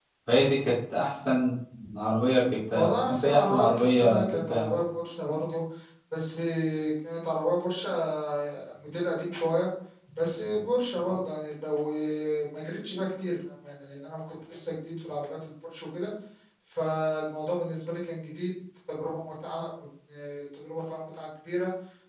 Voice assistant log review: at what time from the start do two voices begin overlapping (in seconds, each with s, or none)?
2.8 s